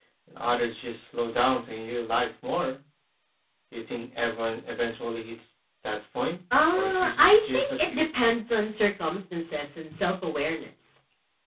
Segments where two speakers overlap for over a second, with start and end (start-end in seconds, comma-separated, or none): 6.7-8.0